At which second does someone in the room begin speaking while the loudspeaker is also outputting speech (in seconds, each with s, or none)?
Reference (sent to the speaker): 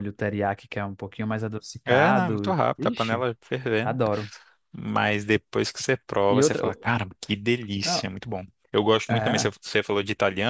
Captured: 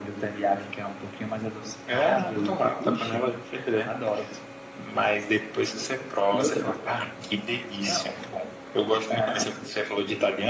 none